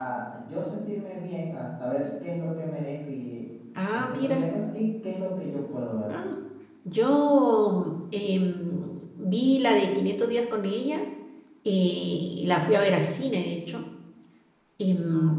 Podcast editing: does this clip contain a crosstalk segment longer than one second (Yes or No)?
No